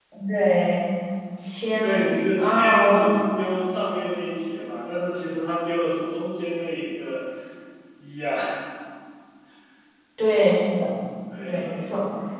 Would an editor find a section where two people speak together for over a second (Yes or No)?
Yes